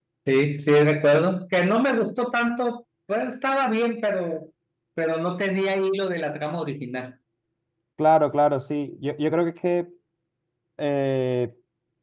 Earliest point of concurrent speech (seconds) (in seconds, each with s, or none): none